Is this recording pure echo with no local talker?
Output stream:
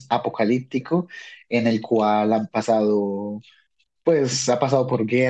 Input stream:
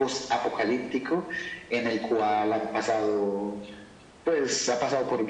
Yes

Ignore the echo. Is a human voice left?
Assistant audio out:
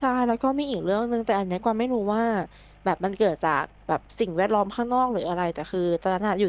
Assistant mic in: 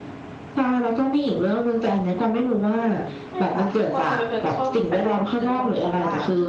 Yes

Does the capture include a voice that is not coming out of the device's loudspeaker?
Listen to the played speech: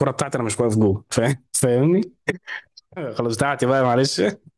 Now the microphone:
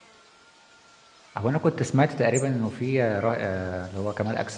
Yes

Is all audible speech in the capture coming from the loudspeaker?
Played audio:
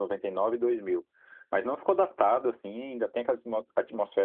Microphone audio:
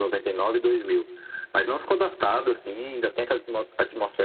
Yes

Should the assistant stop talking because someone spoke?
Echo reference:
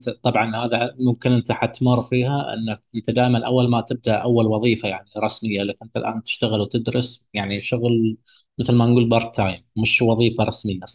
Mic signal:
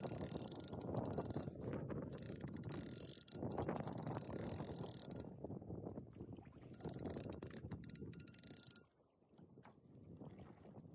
No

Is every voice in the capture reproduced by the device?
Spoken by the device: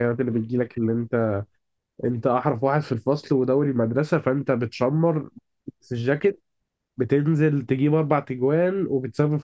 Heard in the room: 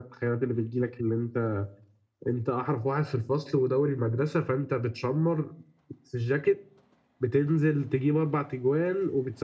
Yes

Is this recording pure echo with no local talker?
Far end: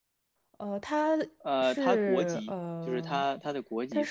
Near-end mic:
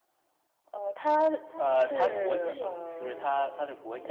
No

